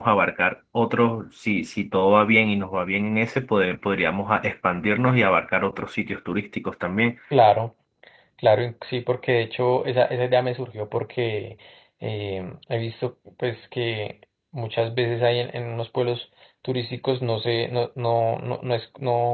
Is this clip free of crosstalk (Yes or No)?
Yes